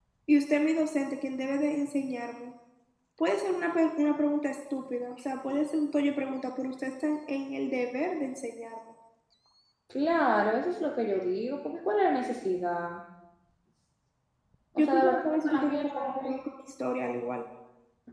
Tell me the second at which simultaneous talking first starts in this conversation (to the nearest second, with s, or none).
15 s